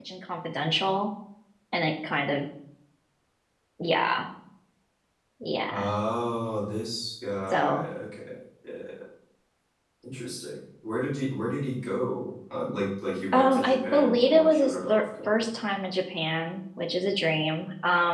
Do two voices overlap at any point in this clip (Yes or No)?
Yes